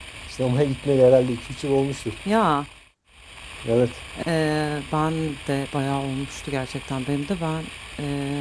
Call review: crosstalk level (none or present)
none